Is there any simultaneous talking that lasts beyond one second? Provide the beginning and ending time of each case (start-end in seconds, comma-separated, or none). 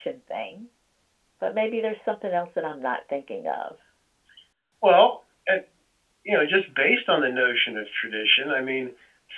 none